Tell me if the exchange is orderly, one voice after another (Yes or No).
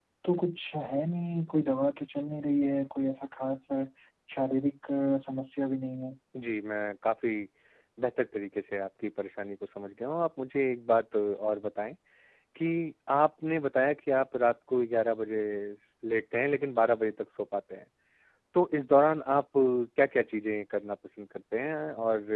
Yes